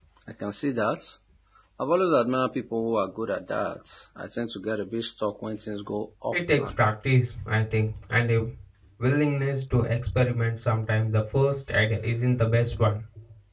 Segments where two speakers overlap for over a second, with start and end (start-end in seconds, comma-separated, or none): none